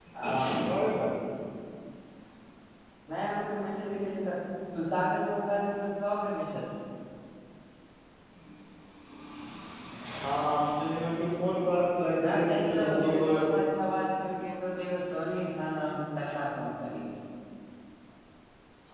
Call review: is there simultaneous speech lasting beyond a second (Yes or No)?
Yes